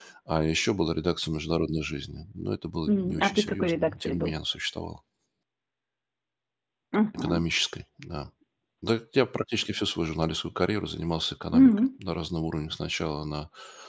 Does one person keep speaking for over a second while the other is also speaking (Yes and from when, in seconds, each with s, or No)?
Yes, from 2.9 s